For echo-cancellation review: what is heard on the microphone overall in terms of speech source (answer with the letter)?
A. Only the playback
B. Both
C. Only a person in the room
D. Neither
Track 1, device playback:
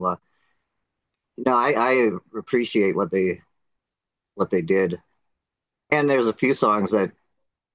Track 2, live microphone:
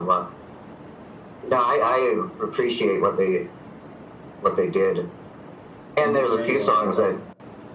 B